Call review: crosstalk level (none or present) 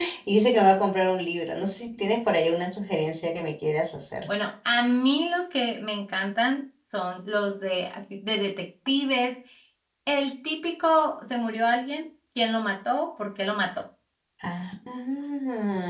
none